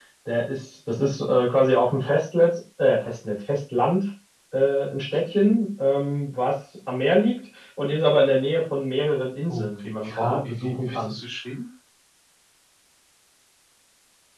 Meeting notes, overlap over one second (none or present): present